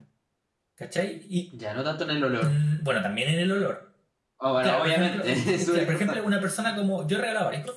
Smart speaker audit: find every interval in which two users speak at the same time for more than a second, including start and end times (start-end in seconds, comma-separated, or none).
4.6-6.2